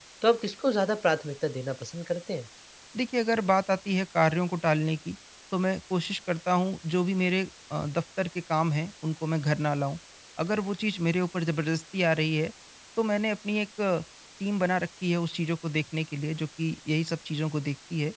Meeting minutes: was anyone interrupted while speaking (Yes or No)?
No